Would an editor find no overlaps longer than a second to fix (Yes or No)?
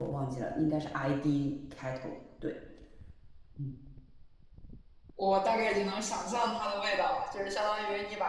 Yes